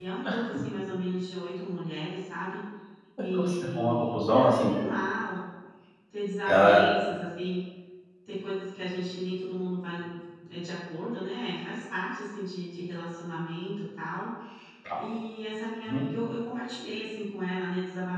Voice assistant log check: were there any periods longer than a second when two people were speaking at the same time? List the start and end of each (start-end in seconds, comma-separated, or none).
3.3-4.7